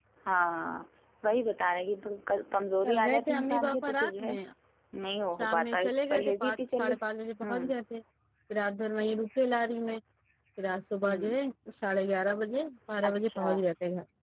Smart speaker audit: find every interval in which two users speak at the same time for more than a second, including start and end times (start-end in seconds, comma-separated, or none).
2.8-4.3, 5.4-6.9